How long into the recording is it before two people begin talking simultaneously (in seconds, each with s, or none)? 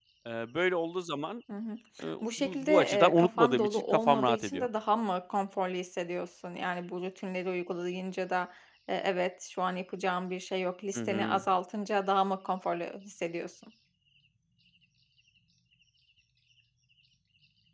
2.2 s